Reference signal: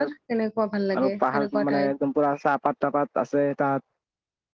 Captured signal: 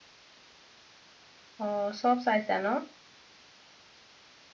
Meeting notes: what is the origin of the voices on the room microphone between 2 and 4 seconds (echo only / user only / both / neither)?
user only